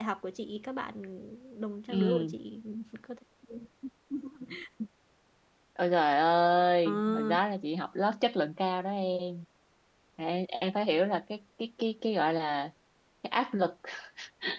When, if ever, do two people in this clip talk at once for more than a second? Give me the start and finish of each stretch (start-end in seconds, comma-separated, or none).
none